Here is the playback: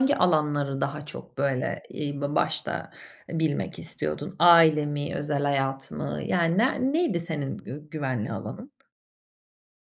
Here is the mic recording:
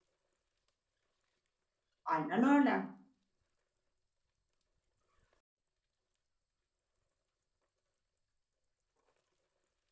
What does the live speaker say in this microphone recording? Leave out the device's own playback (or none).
Aynen öyle.